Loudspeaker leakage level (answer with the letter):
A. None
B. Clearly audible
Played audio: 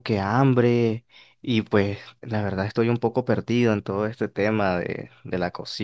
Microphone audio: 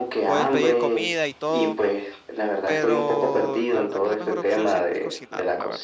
B